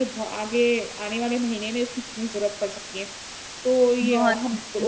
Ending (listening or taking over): listening